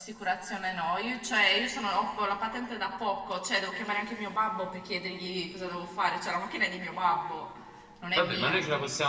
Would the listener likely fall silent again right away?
No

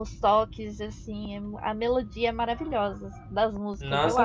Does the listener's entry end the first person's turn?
Yes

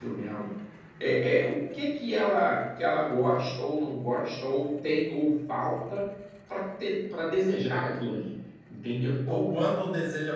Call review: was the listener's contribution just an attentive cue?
No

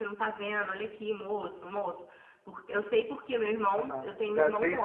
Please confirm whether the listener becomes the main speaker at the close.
Yes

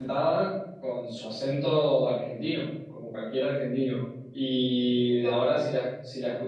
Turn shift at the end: No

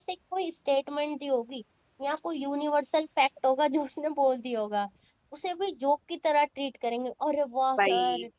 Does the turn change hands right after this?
No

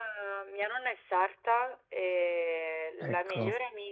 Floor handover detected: No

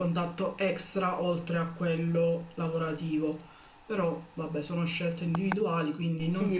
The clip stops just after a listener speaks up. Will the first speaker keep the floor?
No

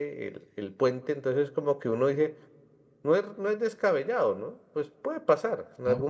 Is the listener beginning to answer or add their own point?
No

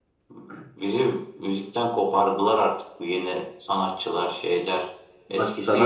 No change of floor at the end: No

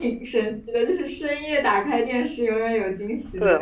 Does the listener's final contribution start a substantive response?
Yes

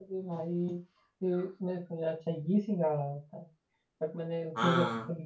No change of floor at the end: Yes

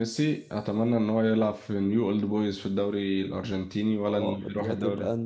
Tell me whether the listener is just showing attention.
No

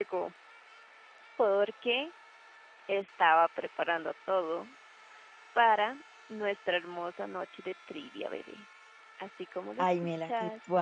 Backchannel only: No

